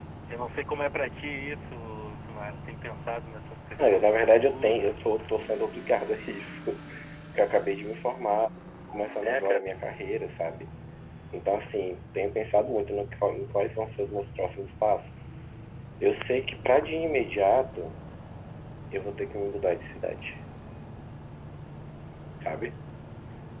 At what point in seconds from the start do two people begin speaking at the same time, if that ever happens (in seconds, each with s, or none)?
3.8 s